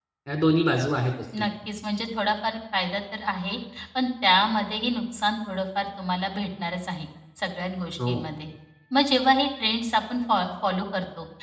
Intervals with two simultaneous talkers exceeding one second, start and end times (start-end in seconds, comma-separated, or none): none